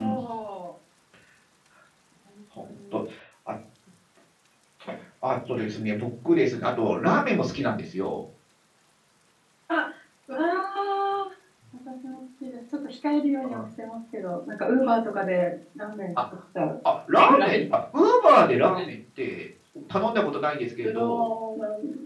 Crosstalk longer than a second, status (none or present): none